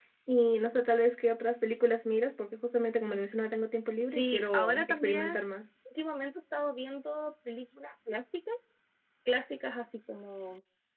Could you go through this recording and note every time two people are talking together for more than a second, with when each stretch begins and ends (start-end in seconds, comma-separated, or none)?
4.1-5.4